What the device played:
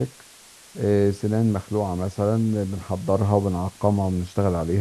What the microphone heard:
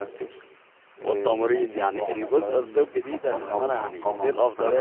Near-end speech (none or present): present